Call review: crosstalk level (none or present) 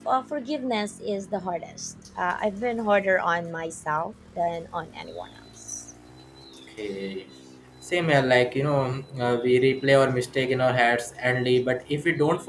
none